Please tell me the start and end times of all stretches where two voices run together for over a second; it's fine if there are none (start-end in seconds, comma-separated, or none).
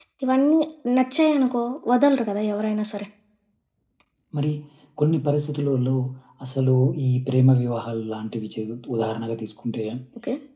none